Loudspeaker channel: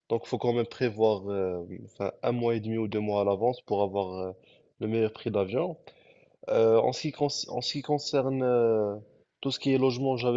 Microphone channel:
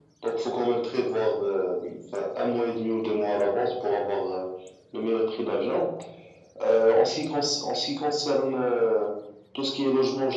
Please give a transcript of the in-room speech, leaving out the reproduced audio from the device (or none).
none